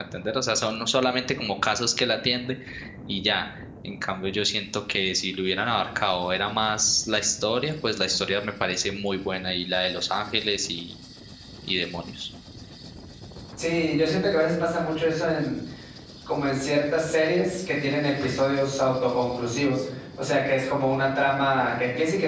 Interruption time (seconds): none

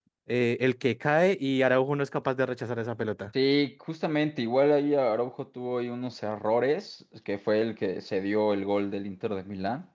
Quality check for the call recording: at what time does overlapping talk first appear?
none

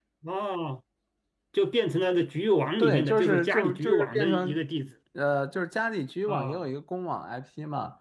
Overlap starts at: 2.8 s

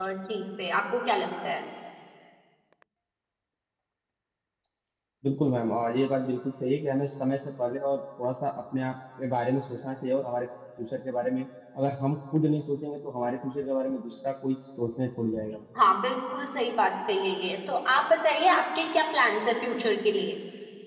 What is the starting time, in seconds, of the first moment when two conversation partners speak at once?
none

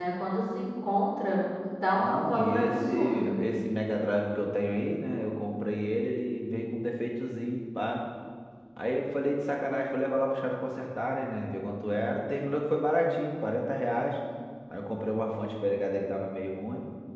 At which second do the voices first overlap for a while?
2.0 s

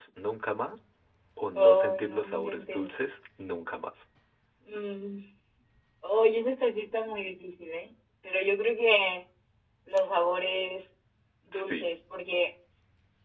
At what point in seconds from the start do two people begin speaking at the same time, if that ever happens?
1.6 s

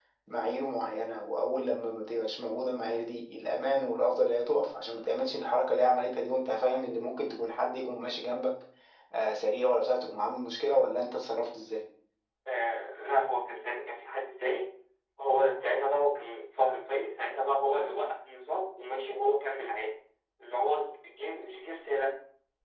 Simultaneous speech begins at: none

